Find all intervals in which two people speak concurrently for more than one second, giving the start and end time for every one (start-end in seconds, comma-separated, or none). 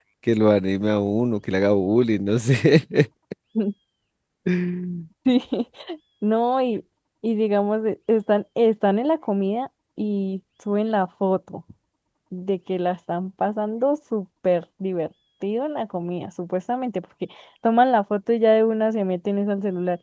none